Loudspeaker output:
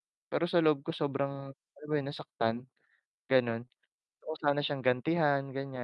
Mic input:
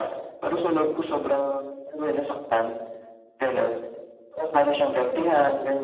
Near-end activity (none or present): none